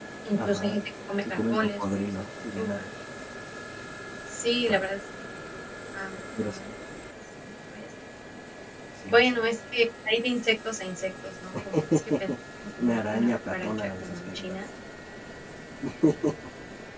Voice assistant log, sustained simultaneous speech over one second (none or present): present